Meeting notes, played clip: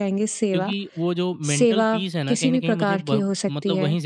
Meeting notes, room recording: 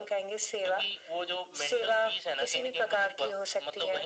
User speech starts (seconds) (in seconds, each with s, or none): none